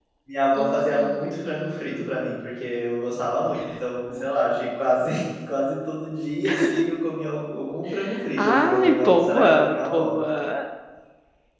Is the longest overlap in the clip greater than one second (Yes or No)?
Yes